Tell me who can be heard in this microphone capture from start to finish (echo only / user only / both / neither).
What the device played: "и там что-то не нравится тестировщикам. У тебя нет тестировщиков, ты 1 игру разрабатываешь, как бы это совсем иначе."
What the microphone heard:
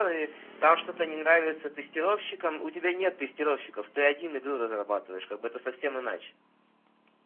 echo only